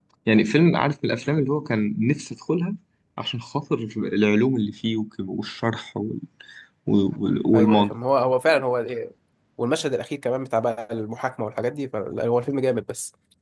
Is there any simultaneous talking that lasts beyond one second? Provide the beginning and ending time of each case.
none

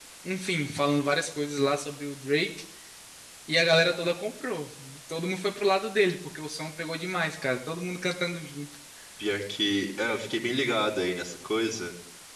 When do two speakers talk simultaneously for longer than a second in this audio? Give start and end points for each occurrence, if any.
none

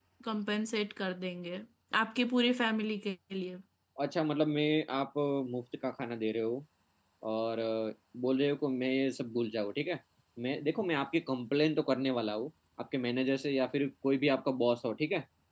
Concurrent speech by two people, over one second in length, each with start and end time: none

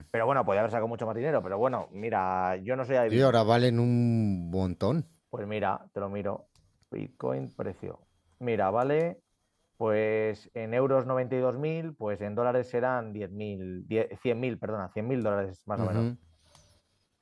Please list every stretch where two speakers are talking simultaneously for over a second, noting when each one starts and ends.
none

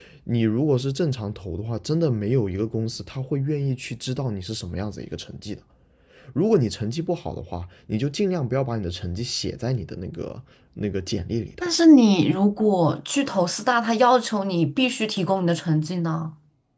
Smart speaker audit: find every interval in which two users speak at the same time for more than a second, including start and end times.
none

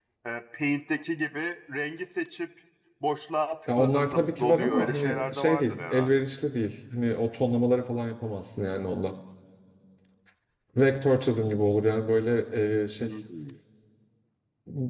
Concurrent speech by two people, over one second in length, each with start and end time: 3.8-6.2

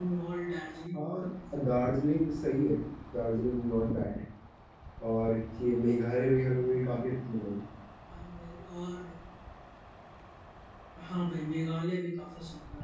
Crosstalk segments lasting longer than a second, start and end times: none

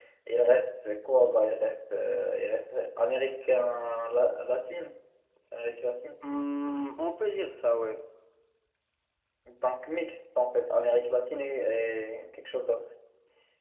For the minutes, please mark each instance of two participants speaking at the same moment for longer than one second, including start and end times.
none

